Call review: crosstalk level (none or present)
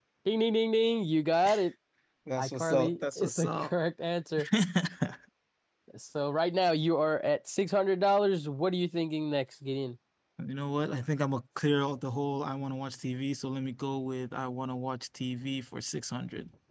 present